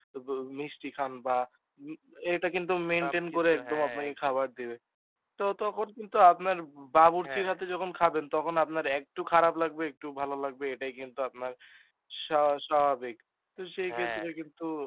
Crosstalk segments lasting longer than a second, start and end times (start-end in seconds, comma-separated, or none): 3.0-4.3